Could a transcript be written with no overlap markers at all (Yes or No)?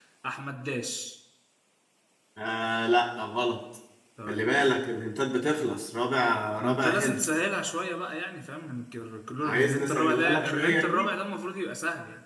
No